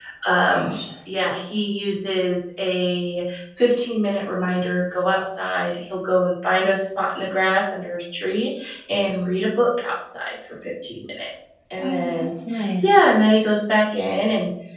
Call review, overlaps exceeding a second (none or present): none